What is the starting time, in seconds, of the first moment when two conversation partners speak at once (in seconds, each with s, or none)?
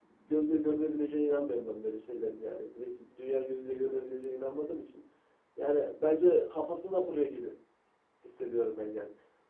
none